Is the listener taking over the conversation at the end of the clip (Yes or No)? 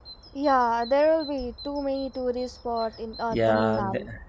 Yes